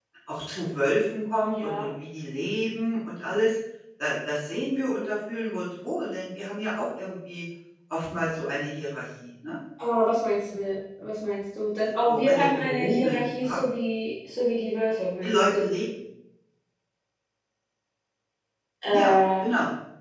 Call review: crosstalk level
present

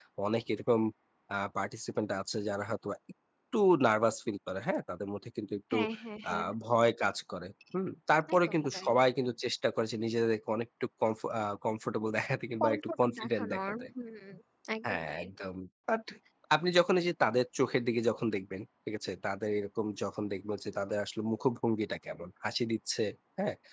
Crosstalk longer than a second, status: present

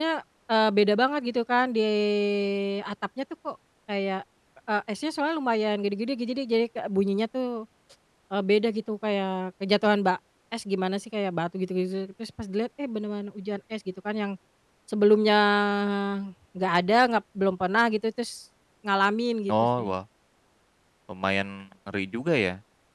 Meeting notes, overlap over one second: none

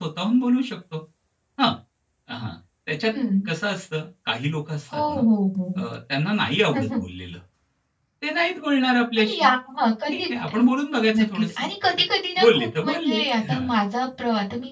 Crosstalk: present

